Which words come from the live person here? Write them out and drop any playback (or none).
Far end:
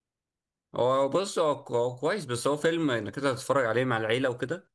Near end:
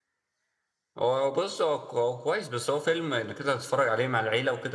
none